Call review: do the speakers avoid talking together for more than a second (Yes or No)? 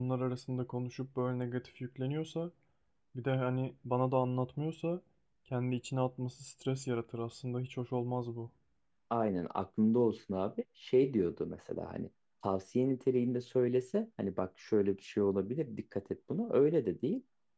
Yes